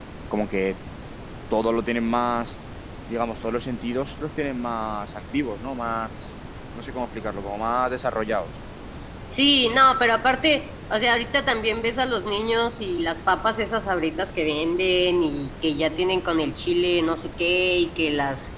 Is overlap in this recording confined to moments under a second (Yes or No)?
Yes